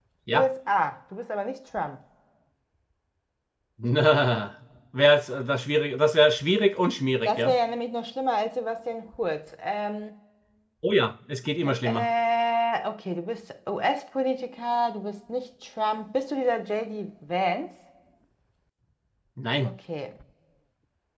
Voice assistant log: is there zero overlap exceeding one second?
Yes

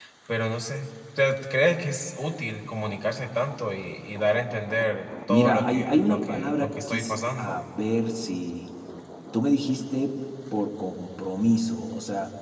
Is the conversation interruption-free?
No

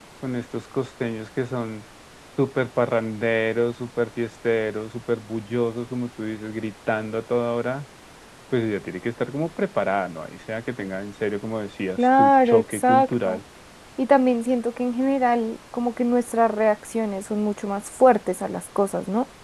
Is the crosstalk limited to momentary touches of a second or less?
No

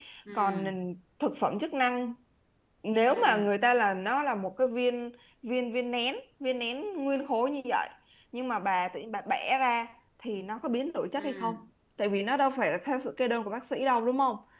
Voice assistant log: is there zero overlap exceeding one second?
Yes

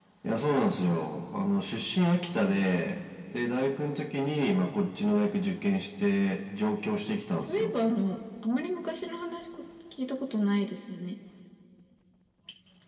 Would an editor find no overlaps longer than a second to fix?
Yes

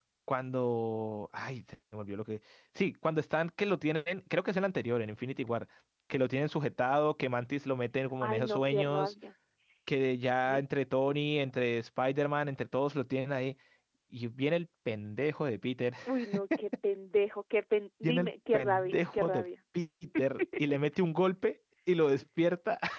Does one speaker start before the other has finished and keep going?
Yes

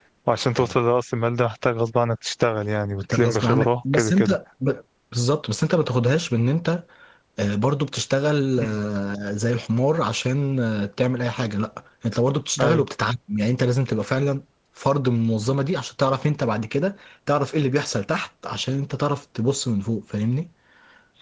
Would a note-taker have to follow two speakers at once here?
Yes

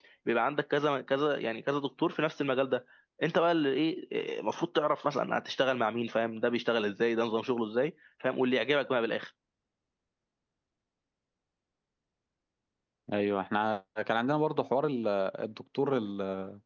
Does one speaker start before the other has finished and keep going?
No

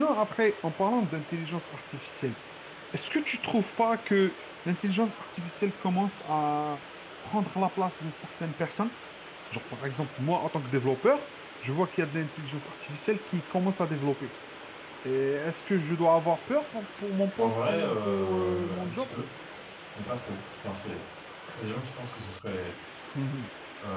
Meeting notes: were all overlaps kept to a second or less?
No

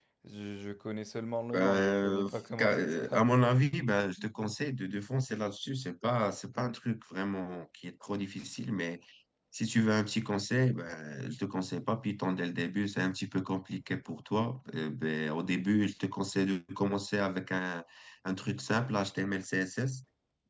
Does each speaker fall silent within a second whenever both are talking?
No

